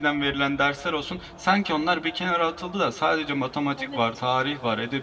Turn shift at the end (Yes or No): No